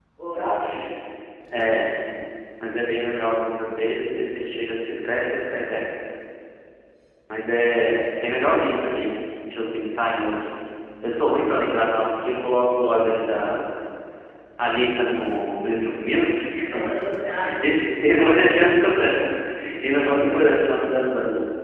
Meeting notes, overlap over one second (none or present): none